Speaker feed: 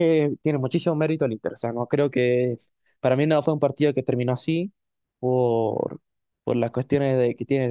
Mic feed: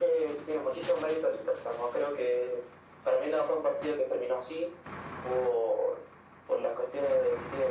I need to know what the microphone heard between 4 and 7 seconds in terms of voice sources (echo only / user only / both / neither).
echo only